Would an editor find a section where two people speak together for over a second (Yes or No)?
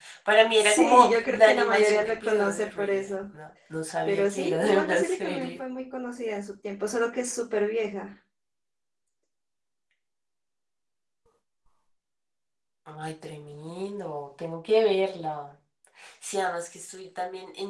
Yes